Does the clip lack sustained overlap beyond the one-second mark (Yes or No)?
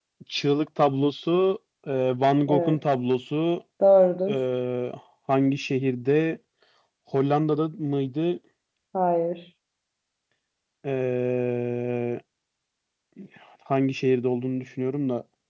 Yes